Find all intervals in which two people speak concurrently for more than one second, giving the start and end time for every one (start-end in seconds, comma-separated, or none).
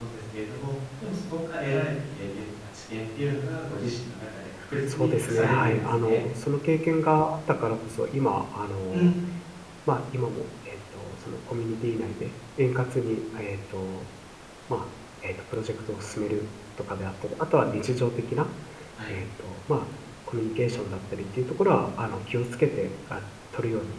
4.9-6.2